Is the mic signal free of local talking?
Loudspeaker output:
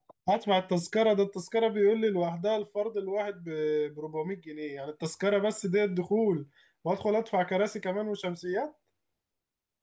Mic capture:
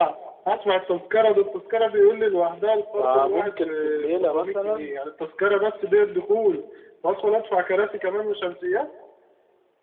No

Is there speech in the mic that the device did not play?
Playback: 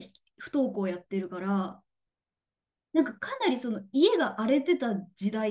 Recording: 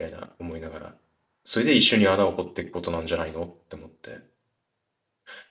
Yes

